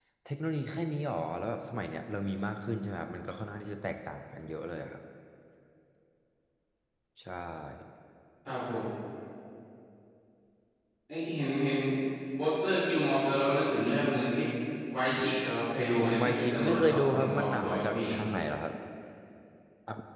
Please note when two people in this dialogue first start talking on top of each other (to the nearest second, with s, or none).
16 s